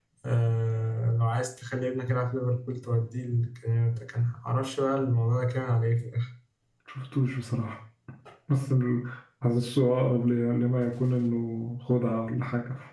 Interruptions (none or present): none